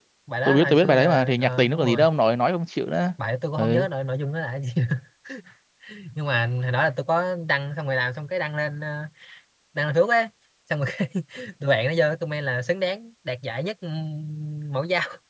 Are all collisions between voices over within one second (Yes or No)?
No